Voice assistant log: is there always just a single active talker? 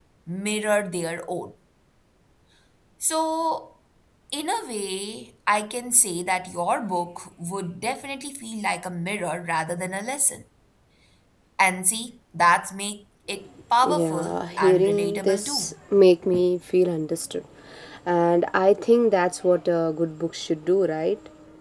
No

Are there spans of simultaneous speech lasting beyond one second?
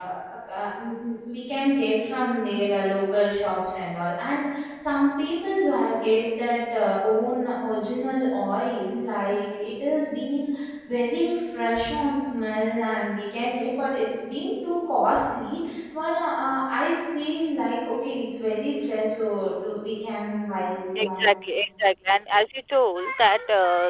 No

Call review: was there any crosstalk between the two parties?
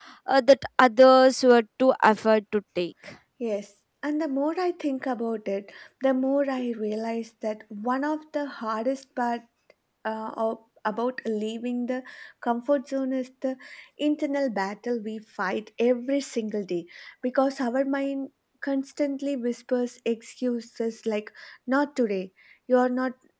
No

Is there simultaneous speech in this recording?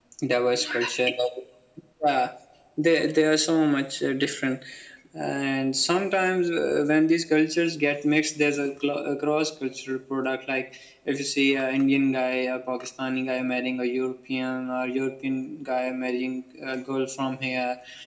No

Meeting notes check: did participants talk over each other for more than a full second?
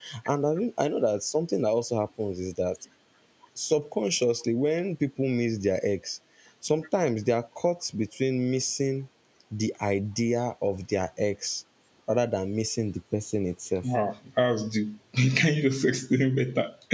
No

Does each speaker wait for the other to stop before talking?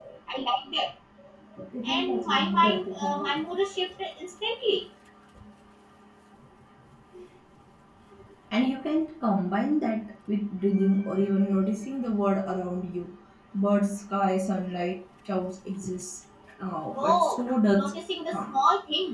No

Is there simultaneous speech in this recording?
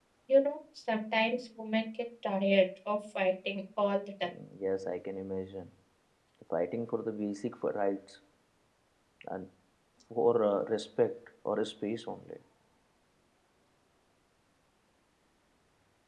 No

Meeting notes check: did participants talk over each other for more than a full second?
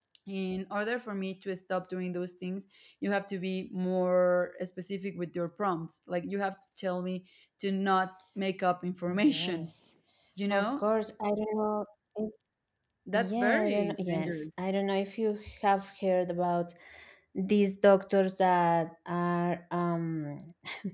Yes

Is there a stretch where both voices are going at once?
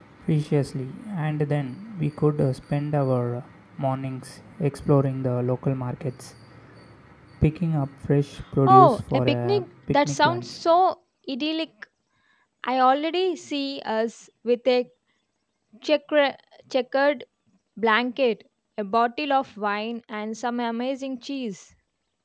Yes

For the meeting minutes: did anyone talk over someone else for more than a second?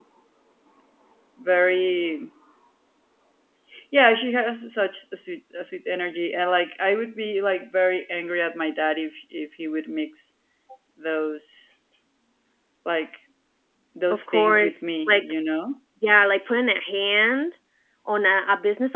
Yes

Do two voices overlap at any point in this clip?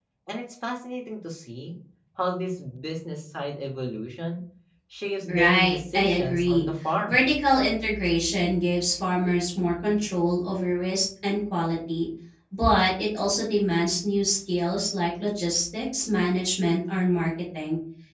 Yes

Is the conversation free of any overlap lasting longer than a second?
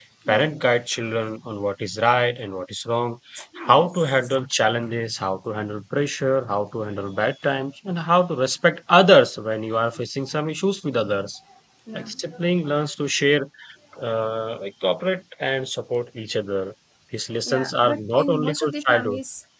No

